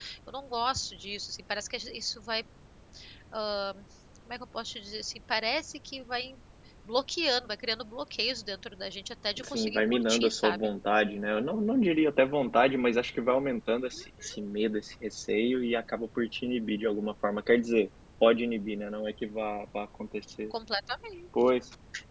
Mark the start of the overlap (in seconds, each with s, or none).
9.4 s